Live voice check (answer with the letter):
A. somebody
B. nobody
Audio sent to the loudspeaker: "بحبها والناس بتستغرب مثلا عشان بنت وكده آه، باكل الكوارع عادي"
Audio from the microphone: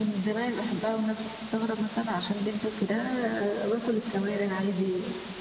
B